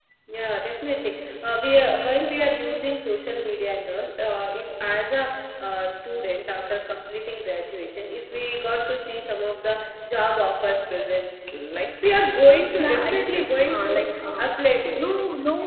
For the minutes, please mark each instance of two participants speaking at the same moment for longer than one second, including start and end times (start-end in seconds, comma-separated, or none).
12.7-14.4